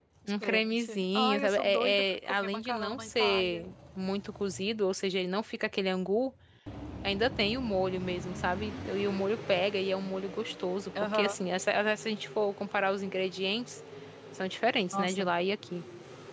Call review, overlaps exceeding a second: present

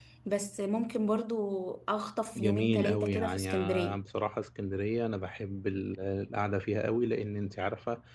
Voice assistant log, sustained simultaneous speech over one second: present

